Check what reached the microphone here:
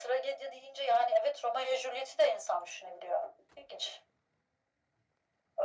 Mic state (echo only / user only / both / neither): echo only